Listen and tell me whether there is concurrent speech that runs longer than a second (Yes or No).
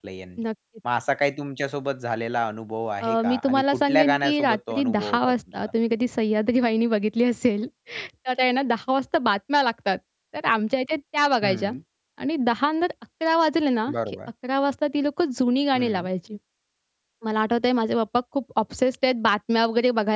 Yes